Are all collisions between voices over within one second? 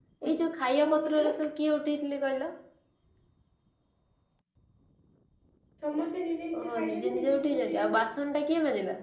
No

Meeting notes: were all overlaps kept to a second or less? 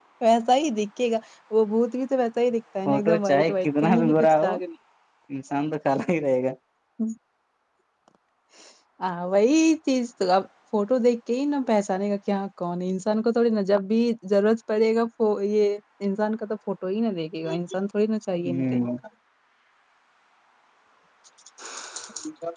No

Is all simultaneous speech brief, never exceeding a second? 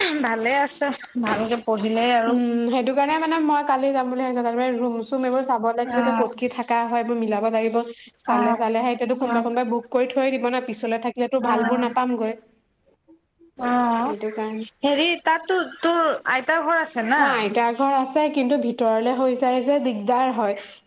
Yes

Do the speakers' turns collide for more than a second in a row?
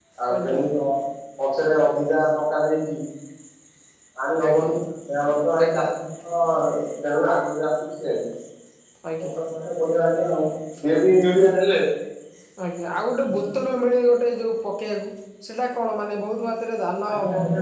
No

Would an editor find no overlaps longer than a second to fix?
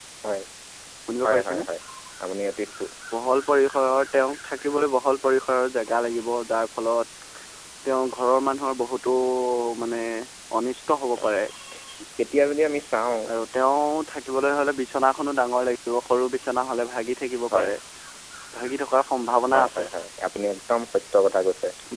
Yes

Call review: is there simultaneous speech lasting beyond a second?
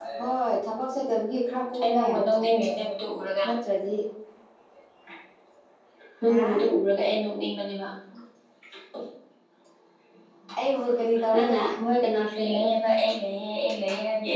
No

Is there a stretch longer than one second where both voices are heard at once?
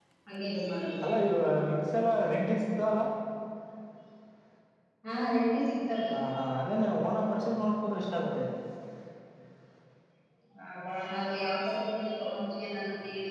No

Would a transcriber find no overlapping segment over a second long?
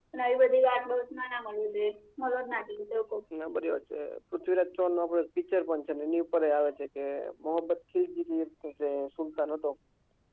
Yes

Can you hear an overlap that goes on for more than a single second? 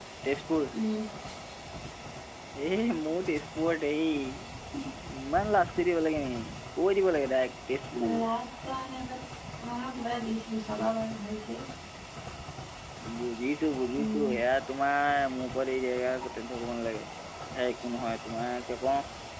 No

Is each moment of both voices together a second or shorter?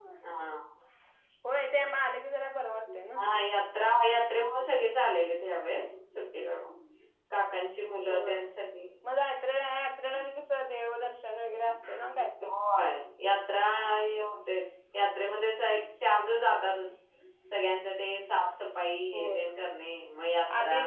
Yes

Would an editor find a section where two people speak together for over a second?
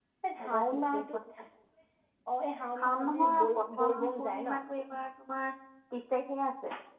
Yes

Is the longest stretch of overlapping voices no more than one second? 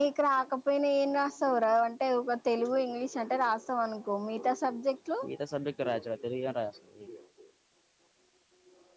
Yes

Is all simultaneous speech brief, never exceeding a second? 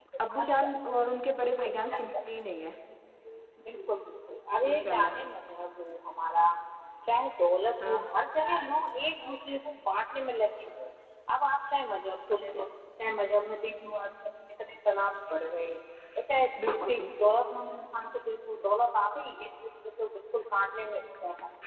Yes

